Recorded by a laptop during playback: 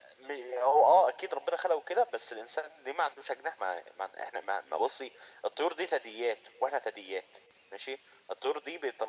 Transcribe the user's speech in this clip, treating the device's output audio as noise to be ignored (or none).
none